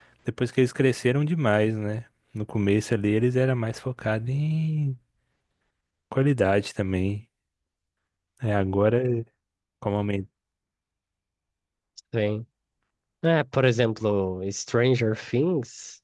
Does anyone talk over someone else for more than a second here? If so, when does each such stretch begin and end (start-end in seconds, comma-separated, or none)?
none